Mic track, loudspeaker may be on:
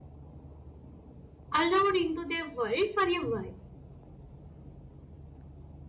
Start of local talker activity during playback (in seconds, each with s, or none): 1.5 s